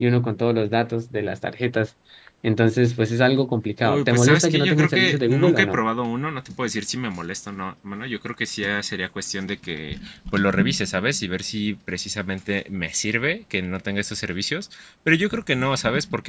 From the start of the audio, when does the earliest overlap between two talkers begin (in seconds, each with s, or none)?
3.8 s